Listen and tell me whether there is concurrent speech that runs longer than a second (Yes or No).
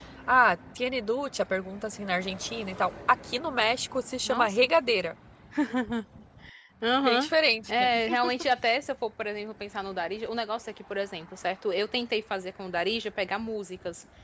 No